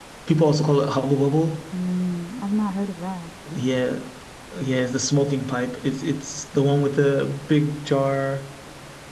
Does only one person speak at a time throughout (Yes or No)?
Yes